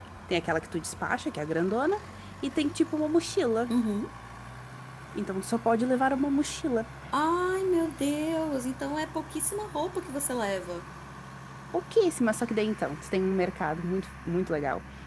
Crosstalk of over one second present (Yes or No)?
No